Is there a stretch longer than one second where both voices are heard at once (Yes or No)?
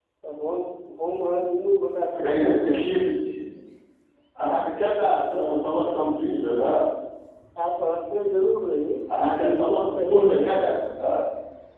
Yes